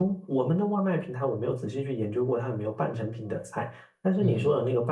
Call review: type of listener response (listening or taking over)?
listening